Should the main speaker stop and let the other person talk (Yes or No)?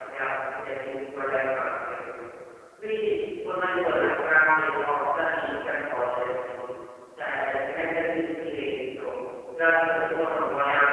No